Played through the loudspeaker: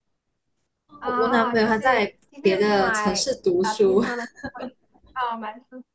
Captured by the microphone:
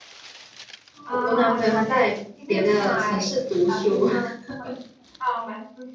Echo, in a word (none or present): present